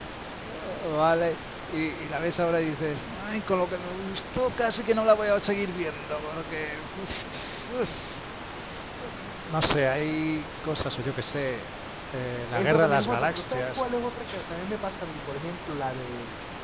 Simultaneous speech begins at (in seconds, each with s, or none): 12.5 s